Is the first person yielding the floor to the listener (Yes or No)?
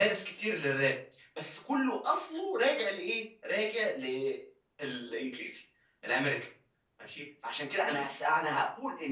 No